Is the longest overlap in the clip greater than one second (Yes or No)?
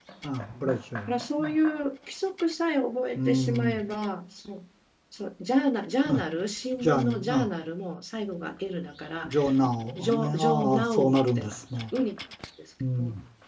Yes